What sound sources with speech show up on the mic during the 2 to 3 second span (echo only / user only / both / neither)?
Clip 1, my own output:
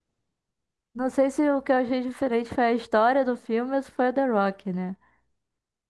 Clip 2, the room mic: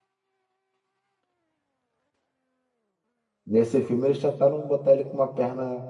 neither